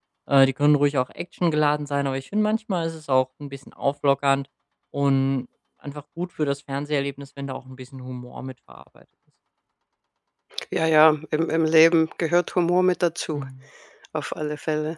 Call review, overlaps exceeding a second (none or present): none